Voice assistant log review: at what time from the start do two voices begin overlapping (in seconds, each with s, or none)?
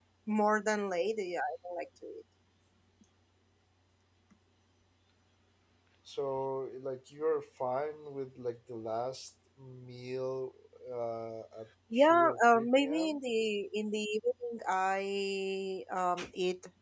11.9 s